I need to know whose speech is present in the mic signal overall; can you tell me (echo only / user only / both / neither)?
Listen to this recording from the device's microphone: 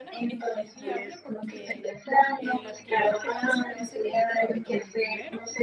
both